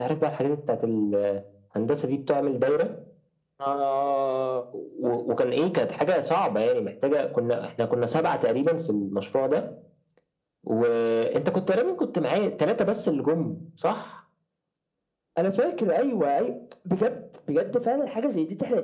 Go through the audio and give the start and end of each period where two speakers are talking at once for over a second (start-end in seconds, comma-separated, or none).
none